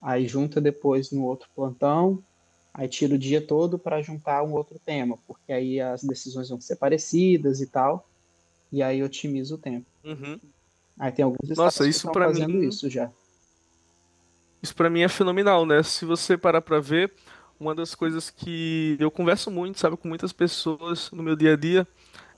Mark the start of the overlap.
11.6 s

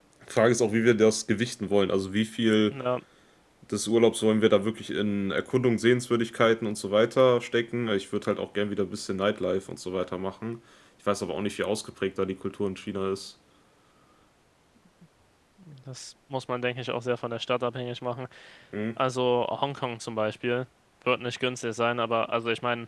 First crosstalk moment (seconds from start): none

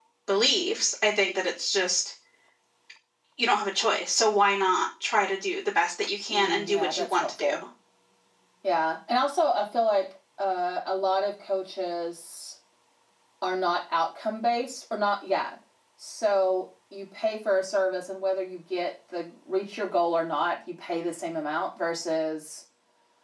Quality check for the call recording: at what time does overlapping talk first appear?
6.3 s

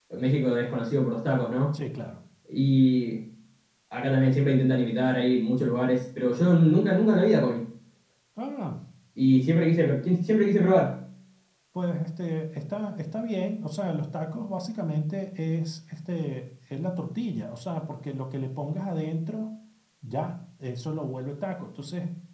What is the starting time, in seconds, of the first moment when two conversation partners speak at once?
none

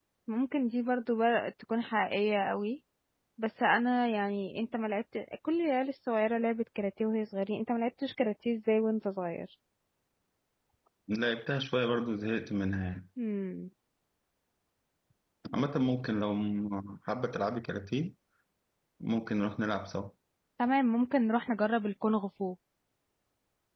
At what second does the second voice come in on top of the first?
none

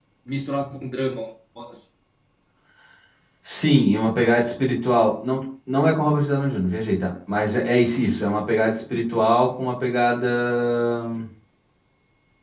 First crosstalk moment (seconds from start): none

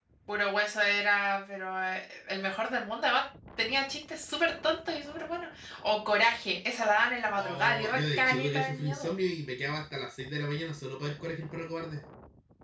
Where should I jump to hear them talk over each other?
7.4 s

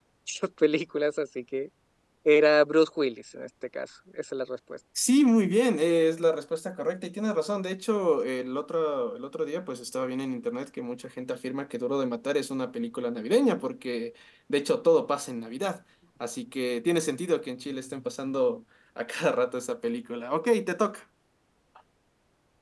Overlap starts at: none

